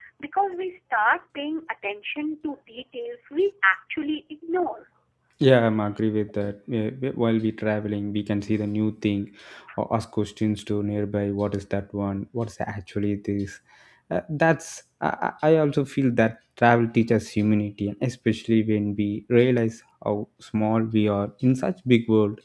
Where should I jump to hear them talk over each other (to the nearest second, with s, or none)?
none